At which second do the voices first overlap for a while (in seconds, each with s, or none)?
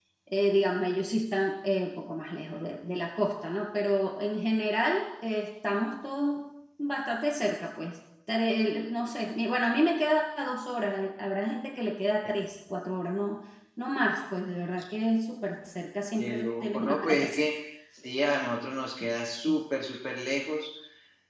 16.2 s